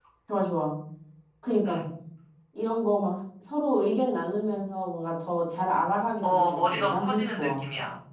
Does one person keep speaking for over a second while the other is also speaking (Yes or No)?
Yes